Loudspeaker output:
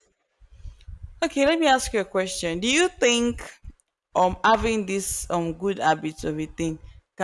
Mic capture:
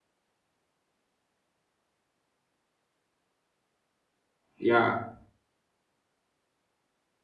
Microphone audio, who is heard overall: user only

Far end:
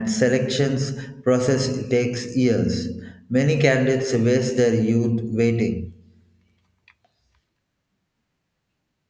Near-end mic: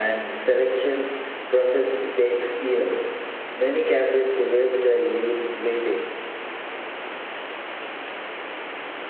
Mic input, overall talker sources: echo only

